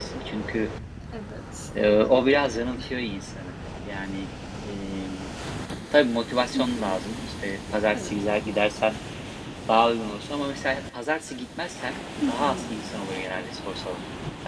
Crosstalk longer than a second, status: none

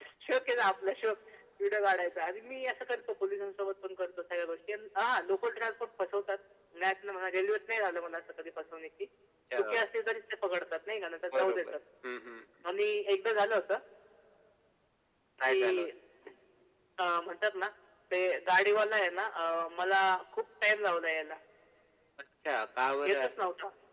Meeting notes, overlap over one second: none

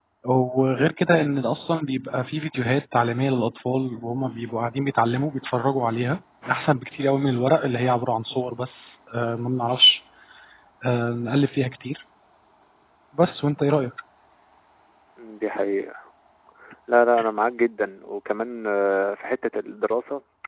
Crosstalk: none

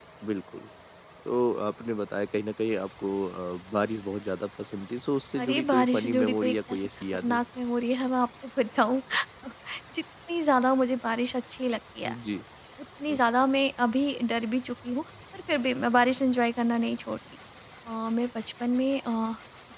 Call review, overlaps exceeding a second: present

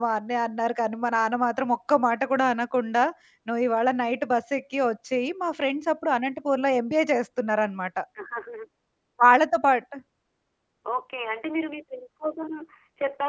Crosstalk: none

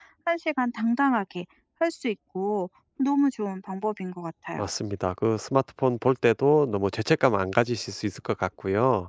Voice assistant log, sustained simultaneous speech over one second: none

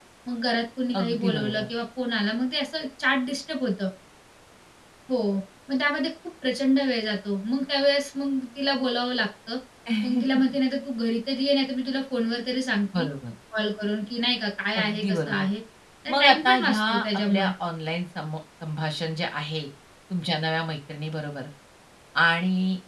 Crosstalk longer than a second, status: present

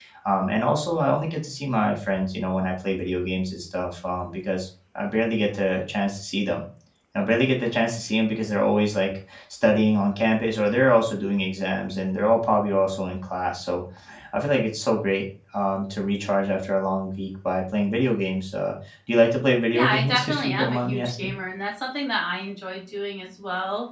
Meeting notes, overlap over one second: present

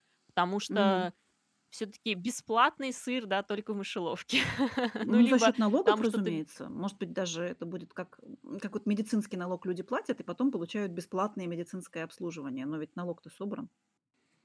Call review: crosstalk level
present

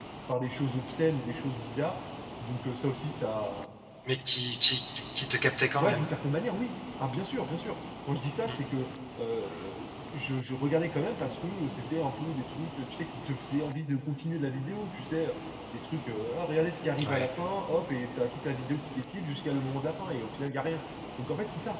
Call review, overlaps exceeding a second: none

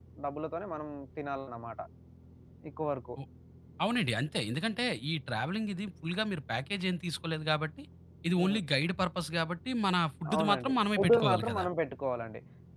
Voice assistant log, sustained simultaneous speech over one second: present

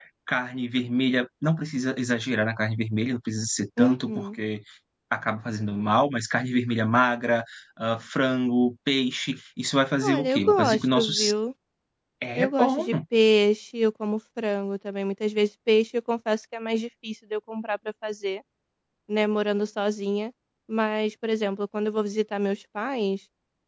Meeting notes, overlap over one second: present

